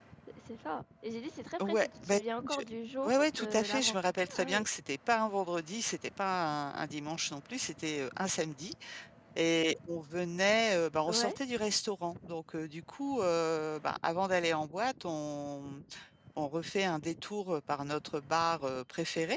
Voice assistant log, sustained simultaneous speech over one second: present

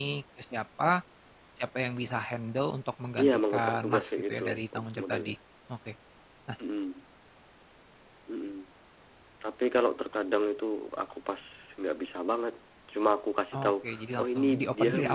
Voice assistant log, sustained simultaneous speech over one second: present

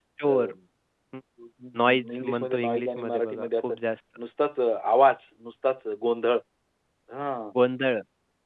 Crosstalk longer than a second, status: present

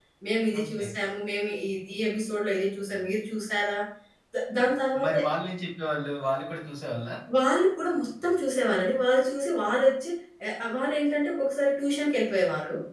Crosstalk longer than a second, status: none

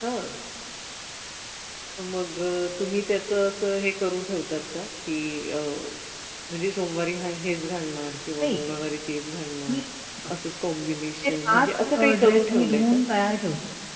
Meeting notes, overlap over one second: present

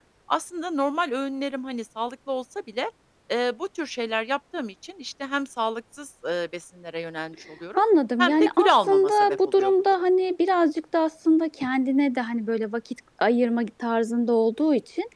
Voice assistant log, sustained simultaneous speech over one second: present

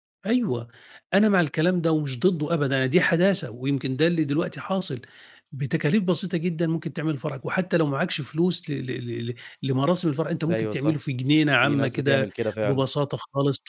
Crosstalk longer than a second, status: present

